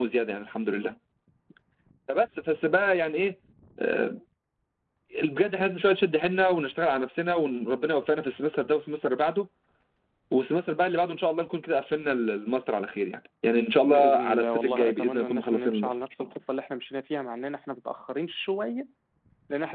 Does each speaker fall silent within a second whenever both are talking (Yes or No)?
No